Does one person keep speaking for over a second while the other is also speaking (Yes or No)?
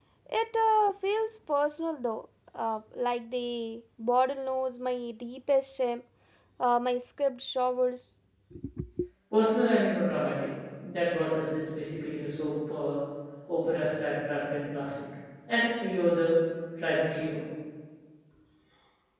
No